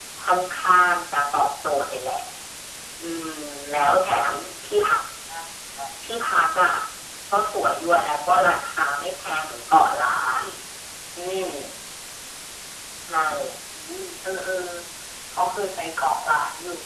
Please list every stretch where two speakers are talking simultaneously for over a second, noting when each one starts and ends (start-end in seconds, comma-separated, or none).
none